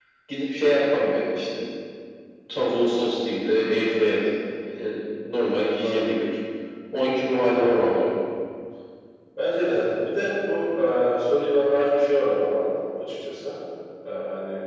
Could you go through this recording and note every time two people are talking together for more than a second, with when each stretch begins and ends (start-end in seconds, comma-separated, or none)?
none